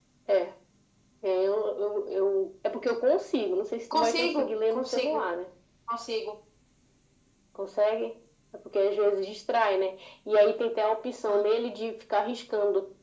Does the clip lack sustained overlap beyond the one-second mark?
No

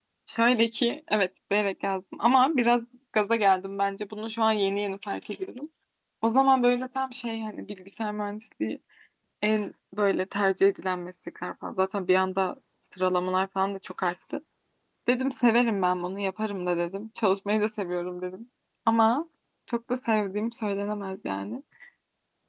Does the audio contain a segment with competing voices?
No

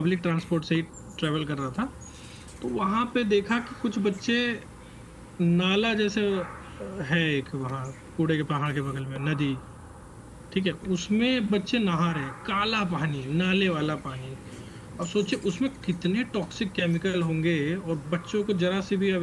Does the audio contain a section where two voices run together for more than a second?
No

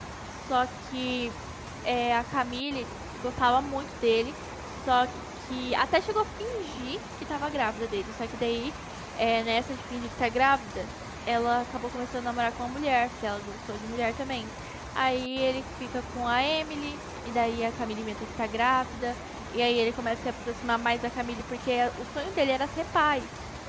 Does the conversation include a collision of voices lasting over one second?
No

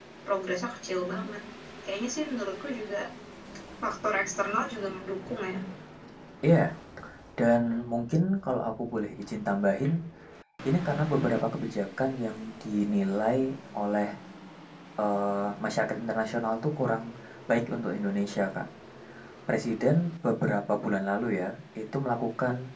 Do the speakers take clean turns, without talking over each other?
Yes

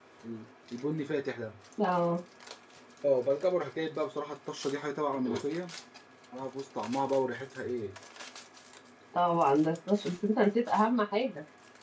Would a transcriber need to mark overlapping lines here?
No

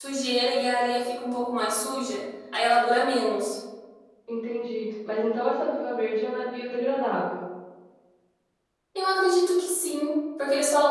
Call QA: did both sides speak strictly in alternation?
Yes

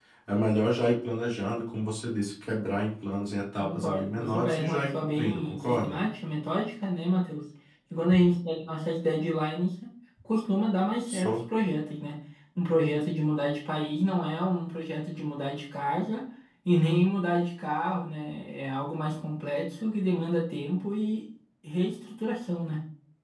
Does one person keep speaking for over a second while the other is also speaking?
Yes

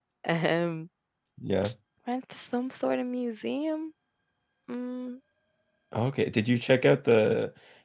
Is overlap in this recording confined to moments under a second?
Yes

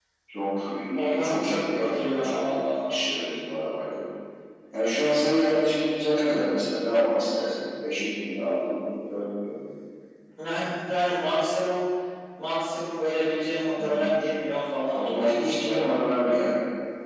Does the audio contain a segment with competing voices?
Yes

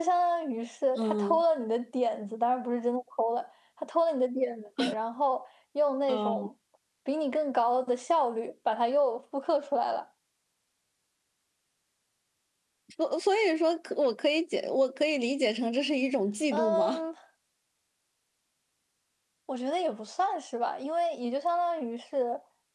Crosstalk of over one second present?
No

